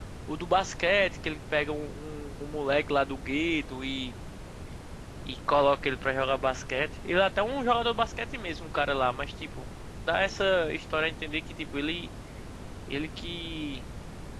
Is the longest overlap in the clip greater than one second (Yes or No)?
No